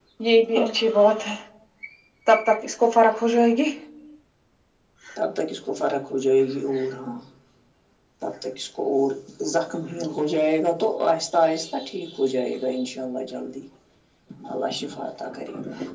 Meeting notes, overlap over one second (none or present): none